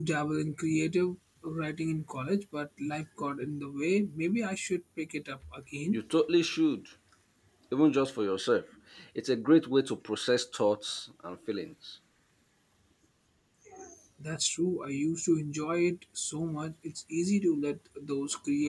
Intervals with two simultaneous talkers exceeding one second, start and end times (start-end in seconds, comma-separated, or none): none